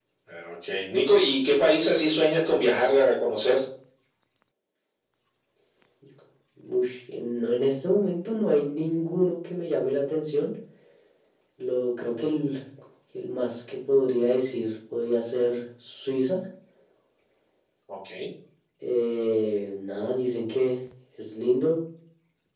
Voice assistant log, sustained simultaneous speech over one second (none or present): none